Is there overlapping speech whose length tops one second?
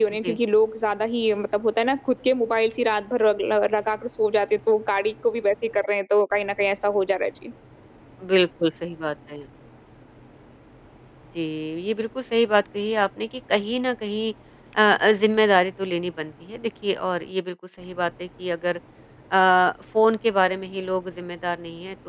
No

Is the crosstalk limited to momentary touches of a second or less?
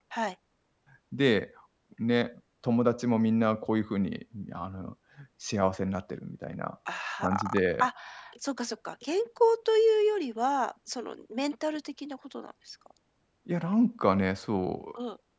Yes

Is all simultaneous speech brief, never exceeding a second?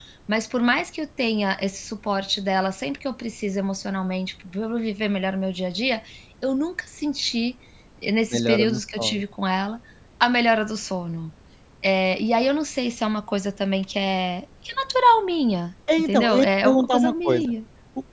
No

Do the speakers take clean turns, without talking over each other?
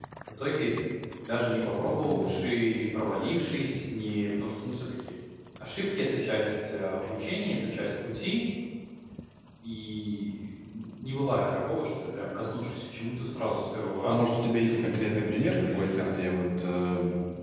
No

